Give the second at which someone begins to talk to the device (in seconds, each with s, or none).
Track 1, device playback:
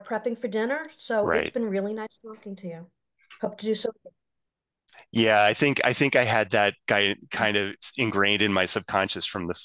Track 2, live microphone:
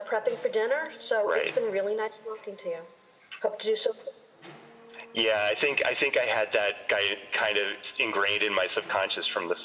none